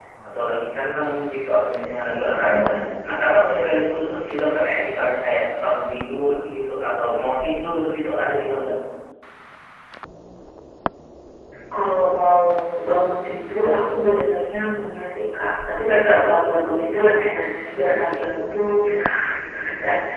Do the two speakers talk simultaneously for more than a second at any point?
No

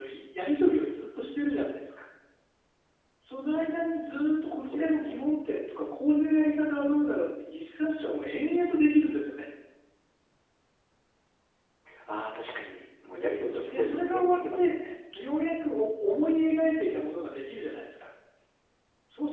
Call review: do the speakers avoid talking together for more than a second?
No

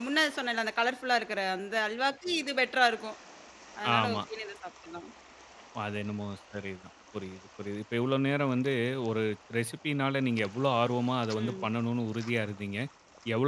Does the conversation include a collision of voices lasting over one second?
No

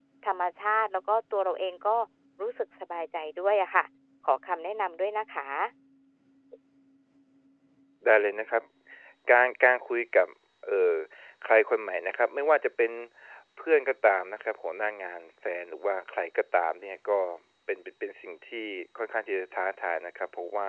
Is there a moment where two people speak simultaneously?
No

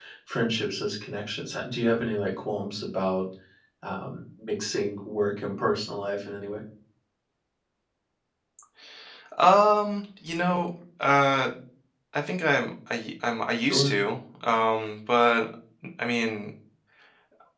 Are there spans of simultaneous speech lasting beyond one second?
No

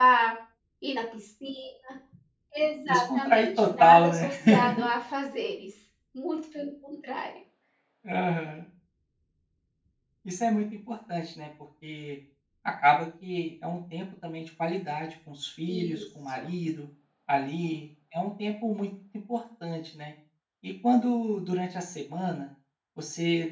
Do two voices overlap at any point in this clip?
Yes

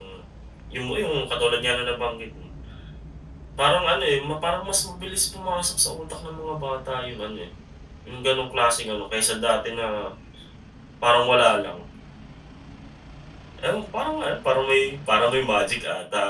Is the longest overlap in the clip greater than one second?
No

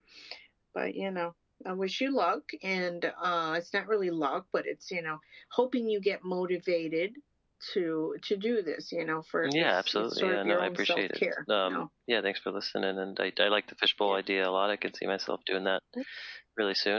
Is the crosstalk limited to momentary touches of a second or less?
No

